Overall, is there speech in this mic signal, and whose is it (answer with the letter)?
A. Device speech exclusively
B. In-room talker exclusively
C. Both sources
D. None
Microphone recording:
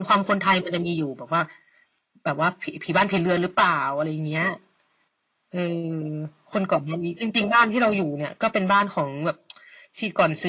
A